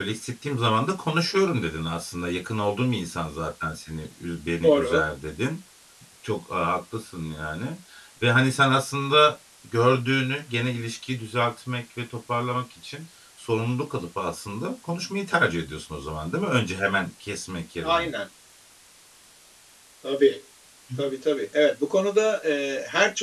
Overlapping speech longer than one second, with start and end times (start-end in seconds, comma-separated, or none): none